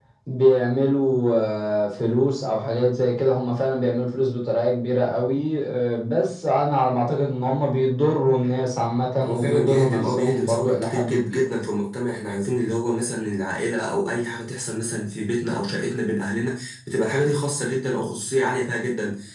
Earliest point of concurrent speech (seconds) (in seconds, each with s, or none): 9.2 s